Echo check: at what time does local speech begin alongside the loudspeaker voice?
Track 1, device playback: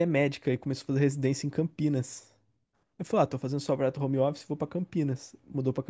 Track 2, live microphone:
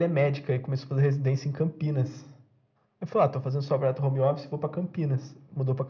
none

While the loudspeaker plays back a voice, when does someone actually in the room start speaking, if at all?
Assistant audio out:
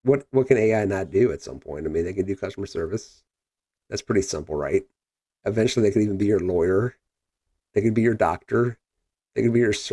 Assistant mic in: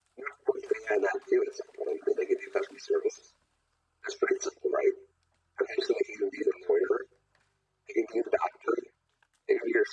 none

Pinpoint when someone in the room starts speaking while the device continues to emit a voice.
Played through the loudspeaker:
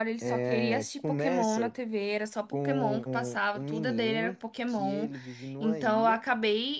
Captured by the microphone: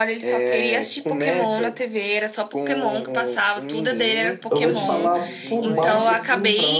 4.5 s

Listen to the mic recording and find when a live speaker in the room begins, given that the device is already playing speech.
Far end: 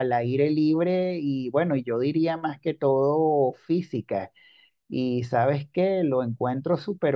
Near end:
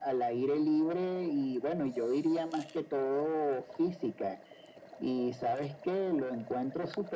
none

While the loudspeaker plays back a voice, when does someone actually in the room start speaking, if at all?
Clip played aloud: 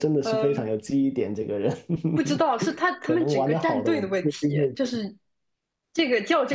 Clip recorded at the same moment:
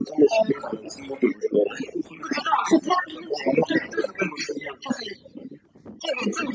none

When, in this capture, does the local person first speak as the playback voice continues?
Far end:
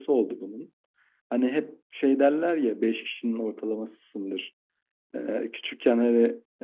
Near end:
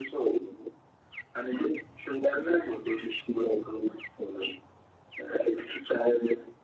none

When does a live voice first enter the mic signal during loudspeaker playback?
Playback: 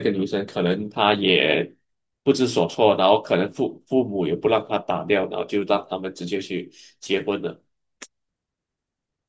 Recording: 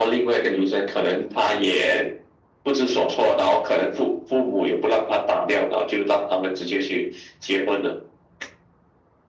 none

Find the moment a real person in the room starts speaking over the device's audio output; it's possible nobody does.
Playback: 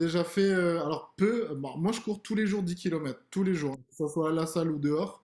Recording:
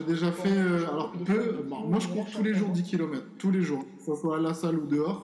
0.3 s

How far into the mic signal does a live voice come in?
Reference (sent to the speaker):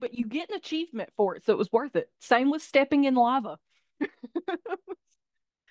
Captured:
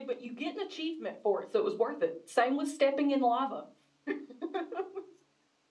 none

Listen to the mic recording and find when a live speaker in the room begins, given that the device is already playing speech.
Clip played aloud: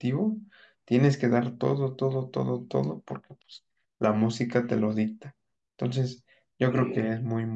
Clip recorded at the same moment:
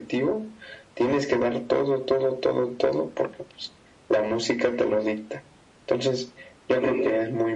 none

